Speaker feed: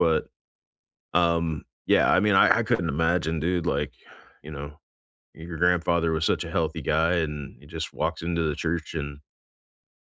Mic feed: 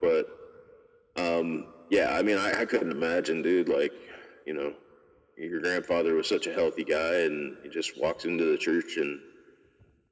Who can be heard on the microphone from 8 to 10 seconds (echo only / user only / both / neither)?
echo only